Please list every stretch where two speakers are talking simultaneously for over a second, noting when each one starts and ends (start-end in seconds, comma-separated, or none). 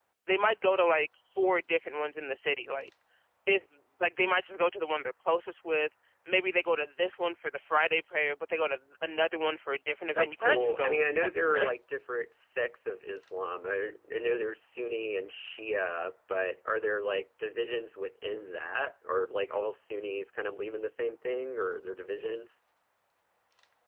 10.1-11.7